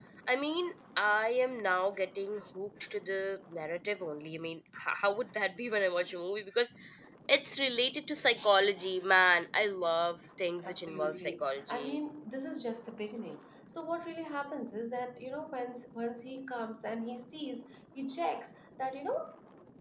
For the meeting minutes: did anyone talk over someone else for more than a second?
Yes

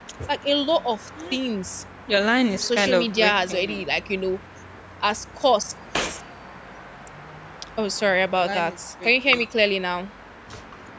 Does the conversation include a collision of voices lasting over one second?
Yes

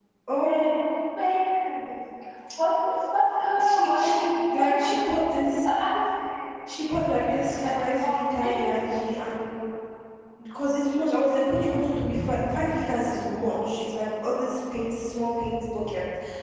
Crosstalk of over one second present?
Yes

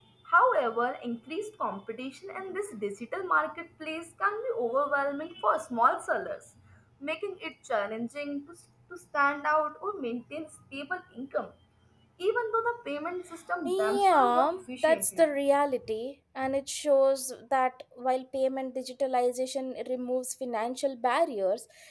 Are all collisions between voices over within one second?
No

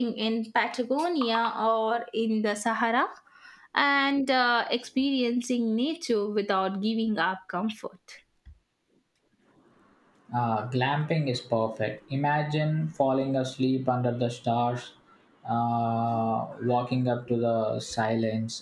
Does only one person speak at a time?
Yes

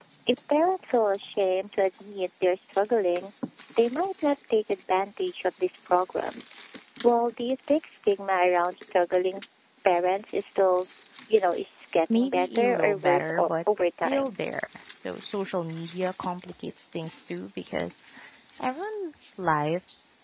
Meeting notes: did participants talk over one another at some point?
Yes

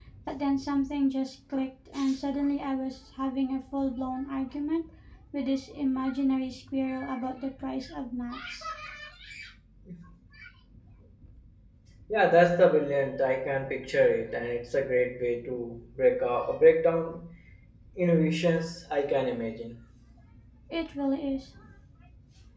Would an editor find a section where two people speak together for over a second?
No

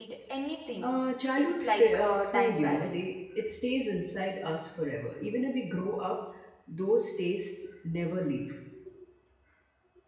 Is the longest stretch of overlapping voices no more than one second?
No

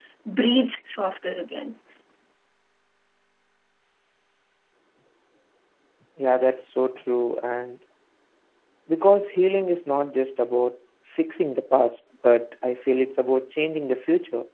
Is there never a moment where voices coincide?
Yes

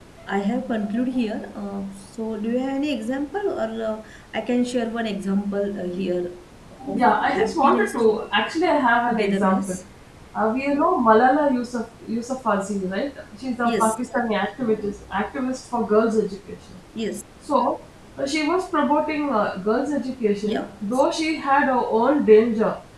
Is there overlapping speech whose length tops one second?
Yes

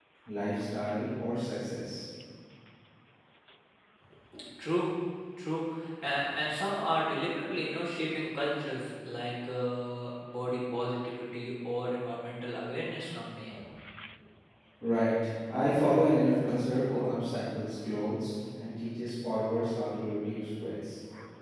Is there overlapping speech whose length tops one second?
No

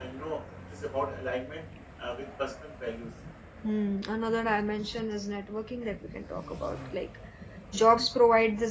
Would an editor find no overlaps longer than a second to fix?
Yes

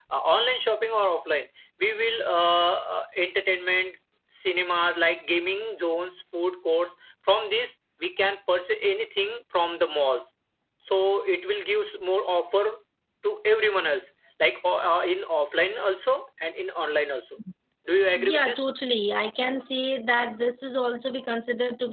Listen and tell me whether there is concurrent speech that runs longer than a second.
No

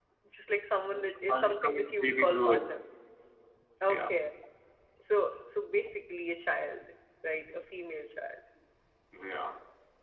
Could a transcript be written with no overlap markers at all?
No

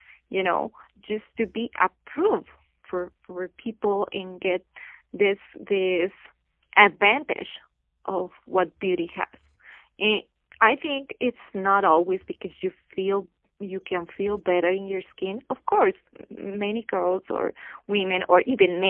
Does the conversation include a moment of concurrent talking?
No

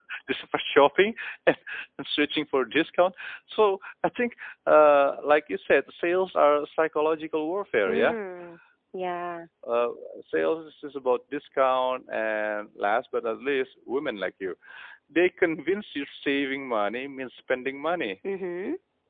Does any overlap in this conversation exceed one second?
No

